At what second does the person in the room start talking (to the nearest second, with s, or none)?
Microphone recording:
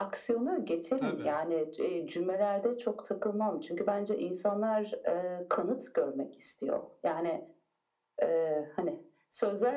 1 s